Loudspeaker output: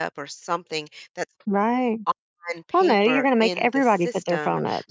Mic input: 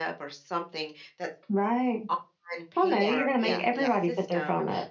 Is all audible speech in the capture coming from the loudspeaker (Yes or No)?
No